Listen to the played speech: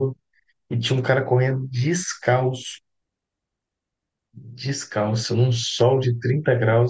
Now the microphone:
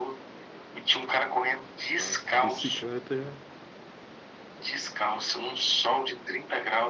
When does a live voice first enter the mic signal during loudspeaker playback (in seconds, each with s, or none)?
1.9 s